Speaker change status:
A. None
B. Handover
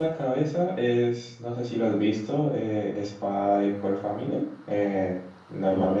A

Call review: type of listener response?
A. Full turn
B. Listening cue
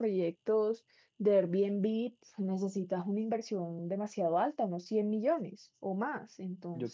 A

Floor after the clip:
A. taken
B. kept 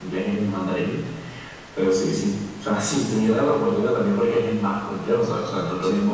B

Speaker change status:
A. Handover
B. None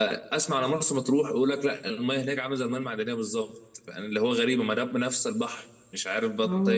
A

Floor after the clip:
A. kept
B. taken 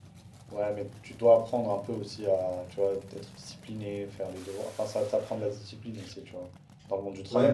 B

